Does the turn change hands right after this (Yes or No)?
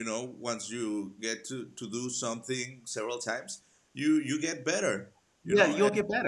Yes